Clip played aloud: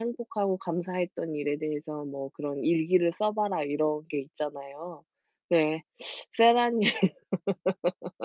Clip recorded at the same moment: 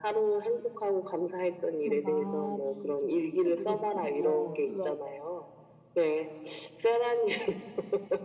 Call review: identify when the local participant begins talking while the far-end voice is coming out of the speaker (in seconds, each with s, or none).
1.8 s